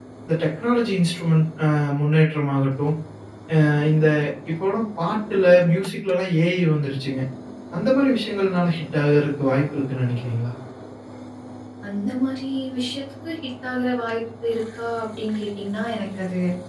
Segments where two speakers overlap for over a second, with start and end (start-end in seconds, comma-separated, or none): none